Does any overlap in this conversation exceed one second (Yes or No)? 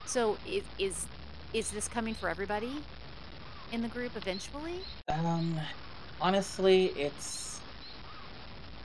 No